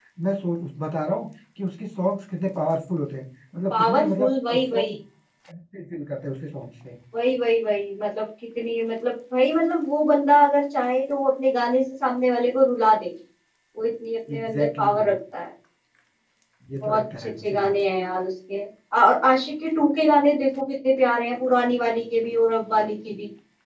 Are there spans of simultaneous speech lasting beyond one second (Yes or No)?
Yes